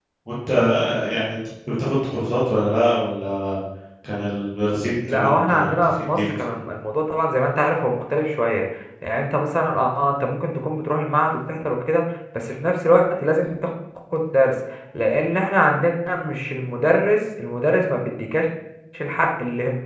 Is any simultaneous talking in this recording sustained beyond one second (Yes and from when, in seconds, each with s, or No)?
Yes, from 5.1 s